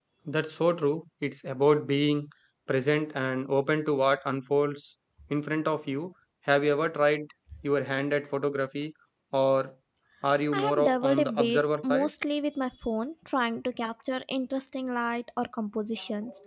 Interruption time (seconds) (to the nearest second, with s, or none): 11 s